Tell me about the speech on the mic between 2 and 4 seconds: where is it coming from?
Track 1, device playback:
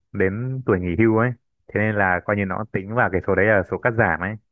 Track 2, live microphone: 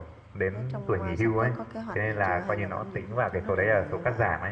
both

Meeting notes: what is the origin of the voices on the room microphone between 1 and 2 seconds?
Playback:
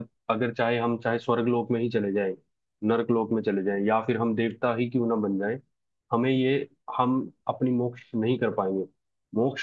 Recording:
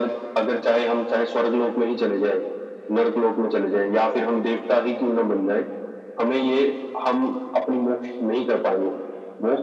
echo only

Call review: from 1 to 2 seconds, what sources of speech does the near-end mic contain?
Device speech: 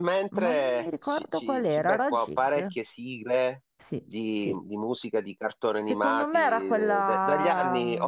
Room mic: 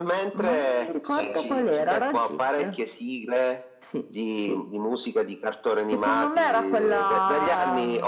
both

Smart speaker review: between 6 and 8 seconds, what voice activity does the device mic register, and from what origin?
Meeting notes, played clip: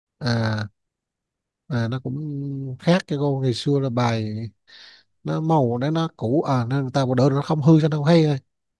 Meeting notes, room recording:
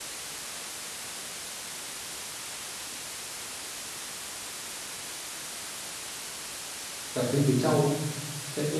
user only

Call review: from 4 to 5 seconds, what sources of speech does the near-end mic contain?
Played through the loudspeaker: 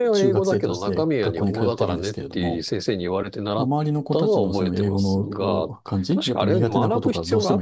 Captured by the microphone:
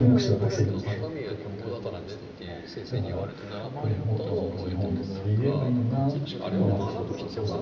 both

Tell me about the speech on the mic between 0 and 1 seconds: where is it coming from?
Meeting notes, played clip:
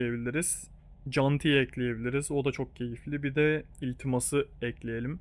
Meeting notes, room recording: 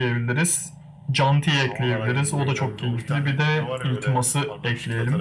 echo only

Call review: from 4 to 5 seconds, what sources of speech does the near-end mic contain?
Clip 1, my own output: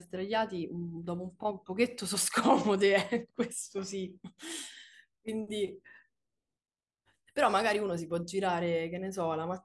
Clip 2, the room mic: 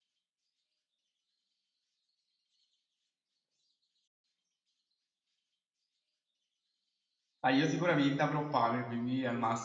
neither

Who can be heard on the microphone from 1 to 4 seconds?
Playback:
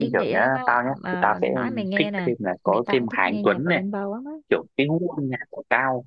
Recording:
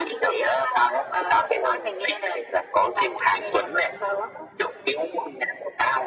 echo only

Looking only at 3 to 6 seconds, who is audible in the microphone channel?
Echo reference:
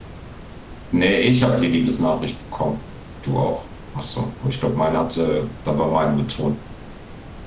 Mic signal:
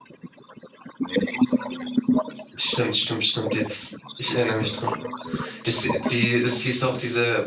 both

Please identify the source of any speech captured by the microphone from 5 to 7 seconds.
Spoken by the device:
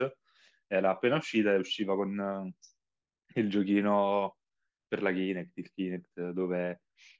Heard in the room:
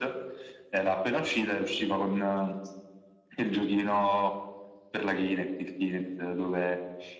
echo only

